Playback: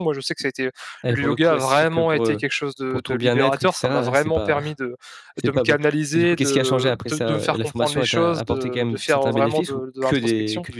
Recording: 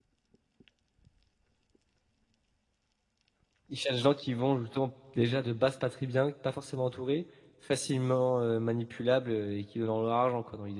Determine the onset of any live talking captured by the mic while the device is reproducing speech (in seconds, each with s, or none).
3.7 s